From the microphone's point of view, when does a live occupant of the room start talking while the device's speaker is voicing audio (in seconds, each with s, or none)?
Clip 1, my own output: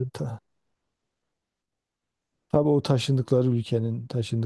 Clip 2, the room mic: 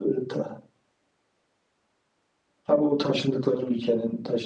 none